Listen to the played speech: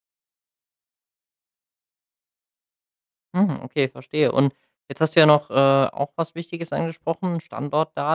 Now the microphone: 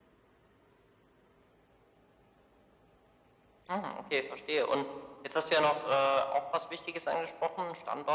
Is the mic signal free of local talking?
Yes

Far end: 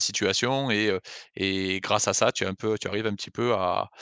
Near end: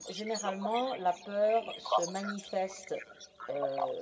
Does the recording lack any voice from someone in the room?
No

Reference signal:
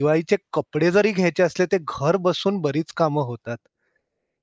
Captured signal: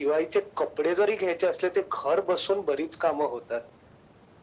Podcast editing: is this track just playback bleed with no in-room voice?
Yes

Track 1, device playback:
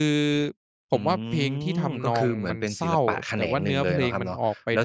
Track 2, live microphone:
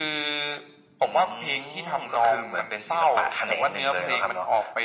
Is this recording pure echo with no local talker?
Yes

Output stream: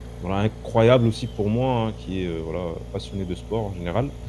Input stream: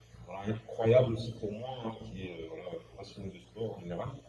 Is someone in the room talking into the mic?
No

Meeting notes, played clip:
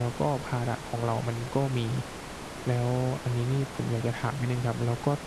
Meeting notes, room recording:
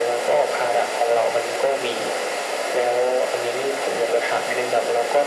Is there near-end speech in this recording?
No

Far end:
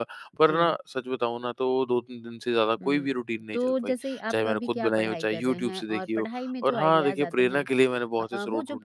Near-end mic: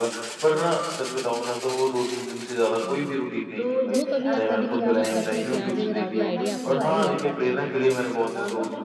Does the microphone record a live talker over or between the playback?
Yes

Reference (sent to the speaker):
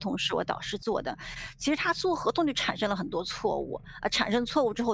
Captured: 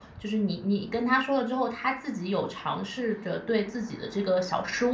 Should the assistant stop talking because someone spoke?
Yes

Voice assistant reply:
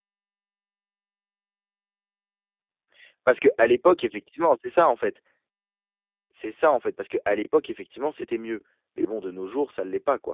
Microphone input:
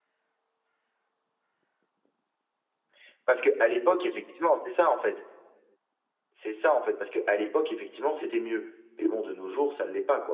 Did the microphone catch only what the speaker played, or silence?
Yes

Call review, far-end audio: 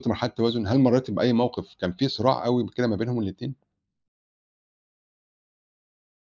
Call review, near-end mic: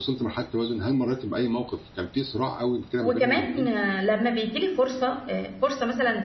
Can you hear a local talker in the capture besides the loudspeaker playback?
Yes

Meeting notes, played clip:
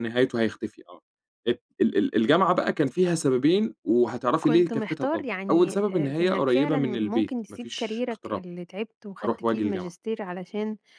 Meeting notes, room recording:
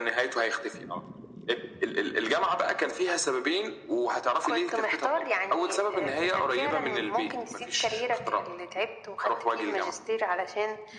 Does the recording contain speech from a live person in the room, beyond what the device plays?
No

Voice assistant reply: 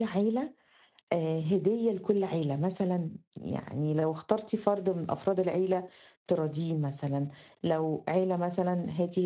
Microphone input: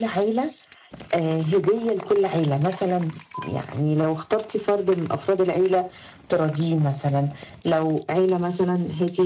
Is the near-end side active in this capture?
No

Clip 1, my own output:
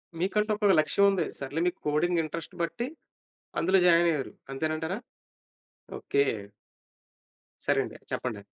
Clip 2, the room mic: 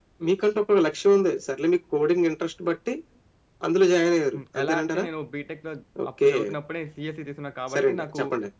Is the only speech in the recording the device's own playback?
No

